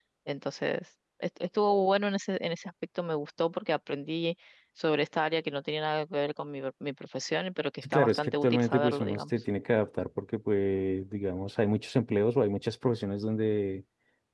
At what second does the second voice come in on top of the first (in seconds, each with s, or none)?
7.8 s